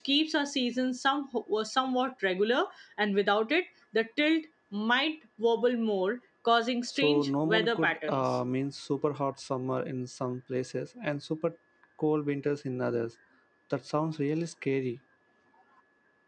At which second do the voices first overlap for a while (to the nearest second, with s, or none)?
7 s